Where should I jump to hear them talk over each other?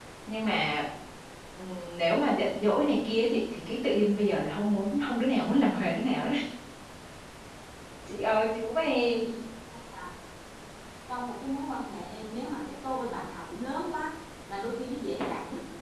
none

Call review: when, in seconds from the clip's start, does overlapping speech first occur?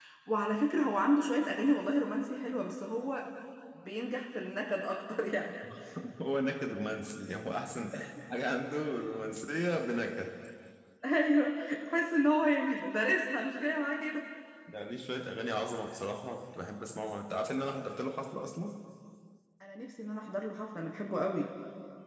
none

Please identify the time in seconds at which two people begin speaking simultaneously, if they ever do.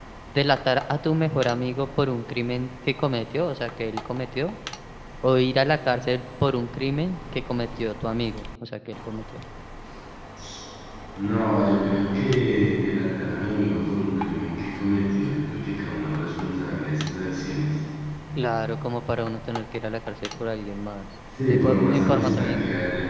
21.3 s

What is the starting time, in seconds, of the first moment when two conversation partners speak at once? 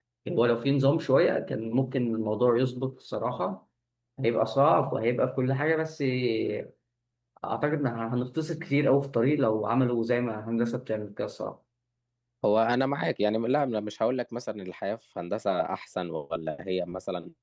none

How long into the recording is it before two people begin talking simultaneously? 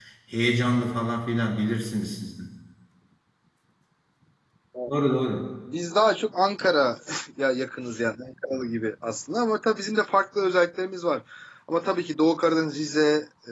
none

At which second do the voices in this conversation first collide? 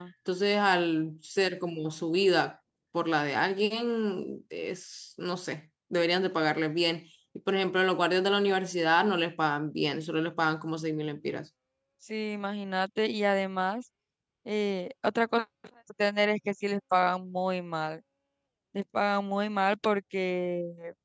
none

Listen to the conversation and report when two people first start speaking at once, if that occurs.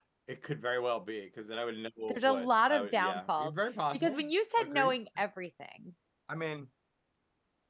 2.1 s

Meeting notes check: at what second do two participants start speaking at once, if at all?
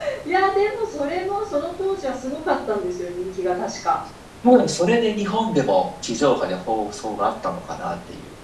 none

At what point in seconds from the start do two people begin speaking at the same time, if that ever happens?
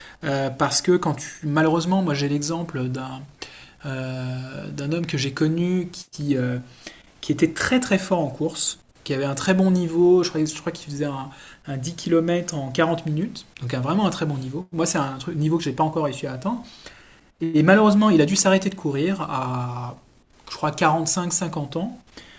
none

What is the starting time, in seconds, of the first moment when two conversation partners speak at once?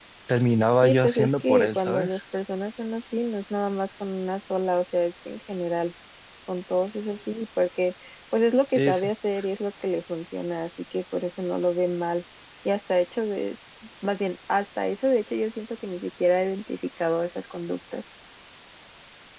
0.8 s

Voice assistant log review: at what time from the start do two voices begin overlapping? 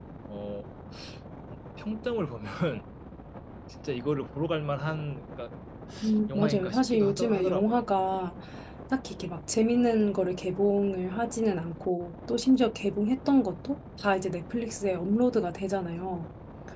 6.3 s

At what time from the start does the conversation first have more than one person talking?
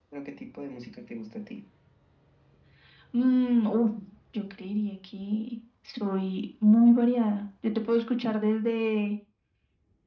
none

